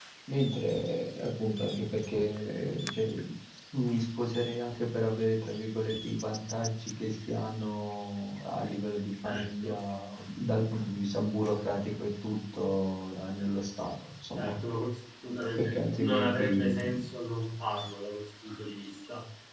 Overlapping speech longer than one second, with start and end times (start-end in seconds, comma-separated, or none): 15.6-17.1